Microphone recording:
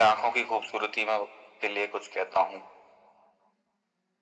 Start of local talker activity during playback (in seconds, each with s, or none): none